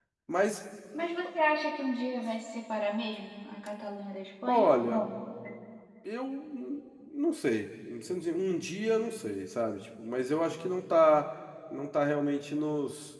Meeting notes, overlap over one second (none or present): none